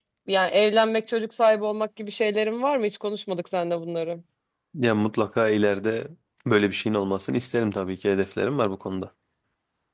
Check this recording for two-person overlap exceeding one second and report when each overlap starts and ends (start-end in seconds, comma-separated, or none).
none